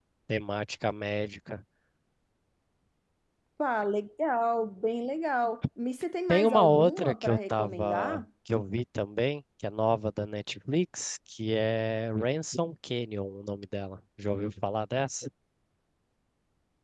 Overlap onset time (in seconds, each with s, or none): 6.3 s